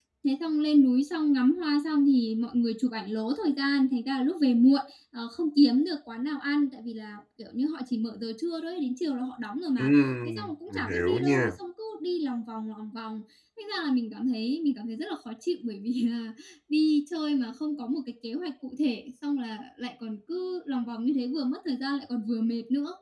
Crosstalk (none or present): present